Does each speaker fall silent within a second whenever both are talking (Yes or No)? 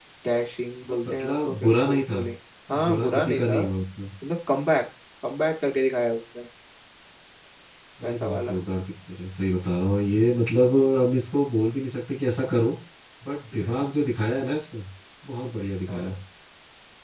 No